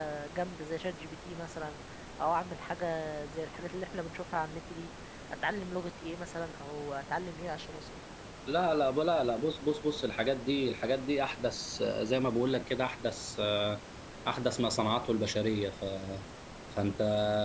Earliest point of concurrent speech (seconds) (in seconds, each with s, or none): none